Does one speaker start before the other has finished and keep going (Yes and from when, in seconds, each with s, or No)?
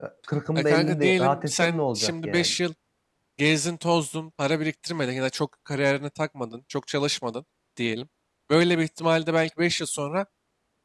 Yes, from 0.6 s